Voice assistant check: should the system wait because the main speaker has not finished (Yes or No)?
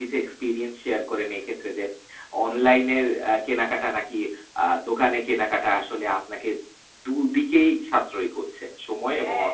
No